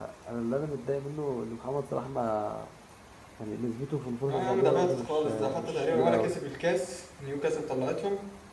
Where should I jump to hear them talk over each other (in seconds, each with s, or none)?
4.2 s